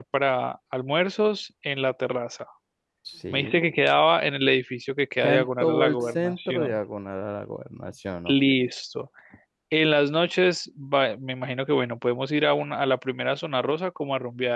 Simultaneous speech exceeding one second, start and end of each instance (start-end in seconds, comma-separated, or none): 5.2-6.8